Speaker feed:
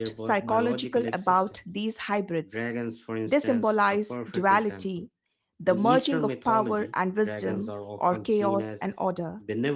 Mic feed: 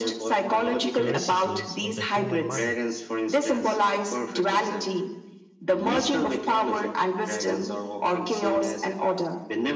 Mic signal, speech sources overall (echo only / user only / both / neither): both